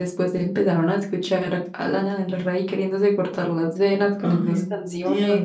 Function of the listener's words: taking over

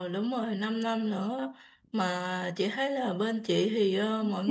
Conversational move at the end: listening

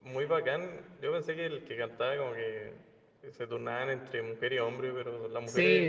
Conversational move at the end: taking over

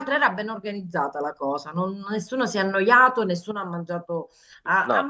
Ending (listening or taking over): listening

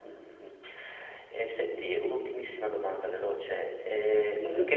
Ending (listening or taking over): listening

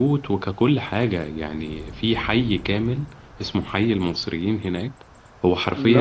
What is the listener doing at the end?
listening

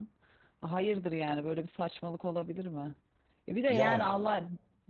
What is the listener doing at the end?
listening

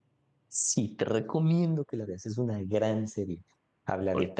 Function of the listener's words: listening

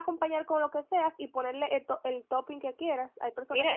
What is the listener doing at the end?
taking over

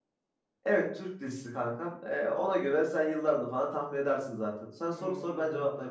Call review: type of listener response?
taking over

